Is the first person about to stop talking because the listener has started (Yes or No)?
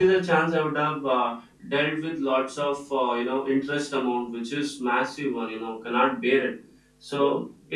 No